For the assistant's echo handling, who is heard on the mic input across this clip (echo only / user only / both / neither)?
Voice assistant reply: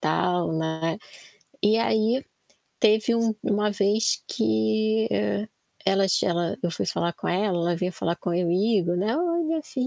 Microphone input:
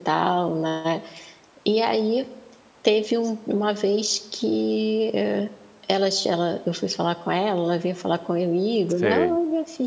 both